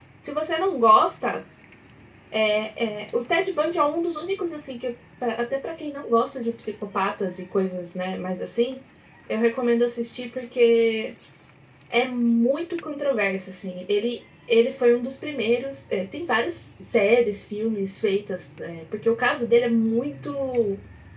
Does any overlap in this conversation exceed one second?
No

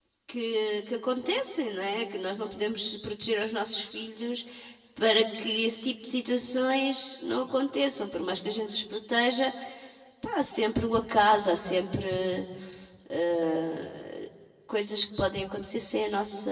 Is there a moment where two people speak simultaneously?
No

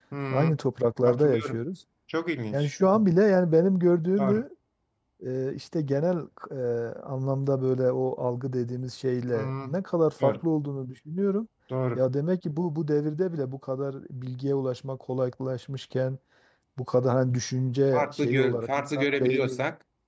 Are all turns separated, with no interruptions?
No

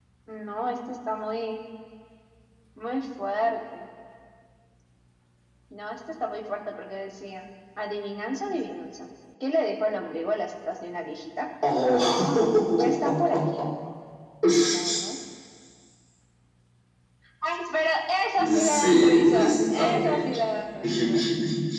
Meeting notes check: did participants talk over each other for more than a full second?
Yes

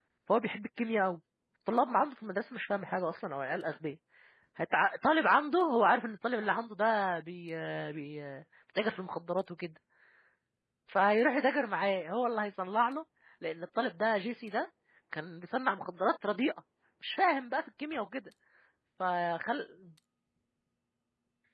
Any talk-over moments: No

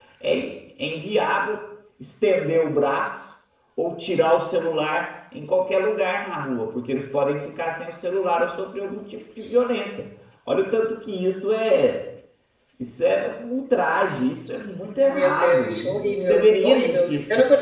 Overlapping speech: Yes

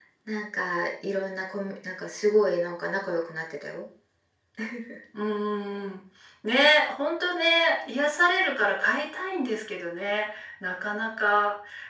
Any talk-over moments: No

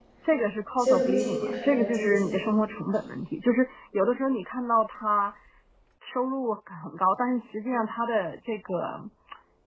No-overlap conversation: No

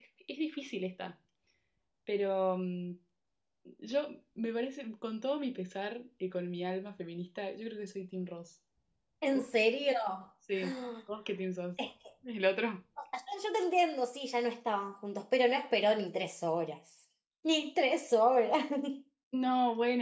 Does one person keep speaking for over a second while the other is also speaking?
No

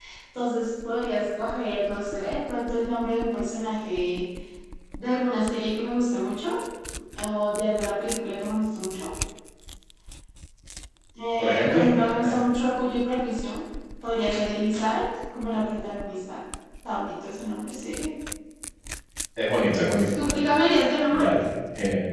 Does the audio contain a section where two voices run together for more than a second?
No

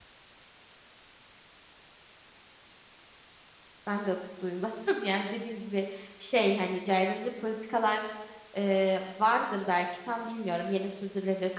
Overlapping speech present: No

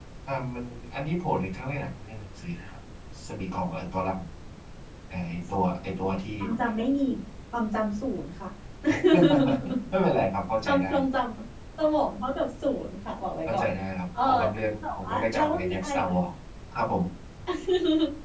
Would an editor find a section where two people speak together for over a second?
Yes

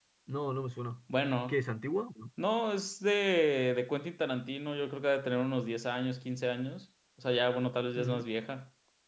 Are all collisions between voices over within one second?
Yes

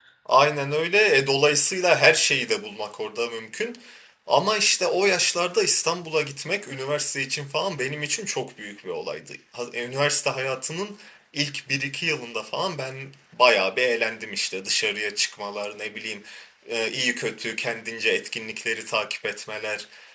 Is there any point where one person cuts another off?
No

